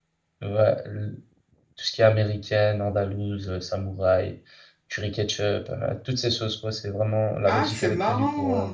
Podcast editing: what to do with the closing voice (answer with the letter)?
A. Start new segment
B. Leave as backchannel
A